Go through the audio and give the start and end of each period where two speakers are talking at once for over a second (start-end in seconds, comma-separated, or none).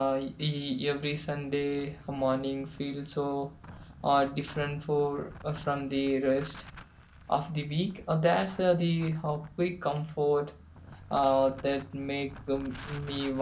none